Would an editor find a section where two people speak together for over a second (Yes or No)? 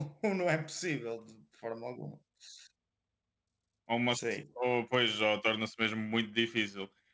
No